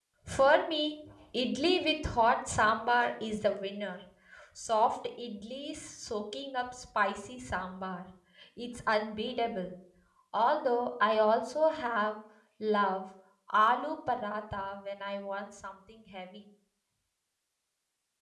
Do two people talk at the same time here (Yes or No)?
No